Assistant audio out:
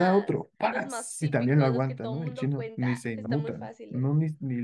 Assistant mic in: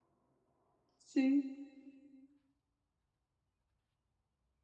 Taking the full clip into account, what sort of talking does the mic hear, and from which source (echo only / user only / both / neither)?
user only